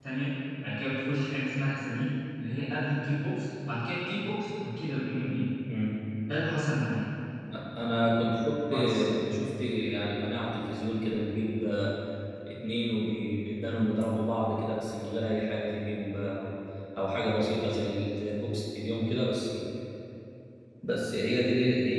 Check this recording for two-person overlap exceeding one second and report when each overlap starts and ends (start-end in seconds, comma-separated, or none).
none